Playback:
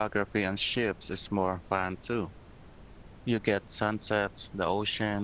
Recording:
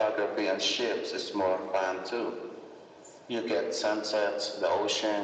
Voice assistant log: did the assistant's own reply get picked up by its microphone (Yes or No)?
Yes